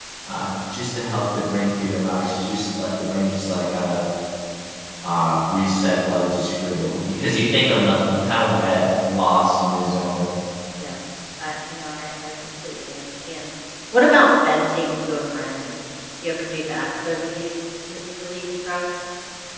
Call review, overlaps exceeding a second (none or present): none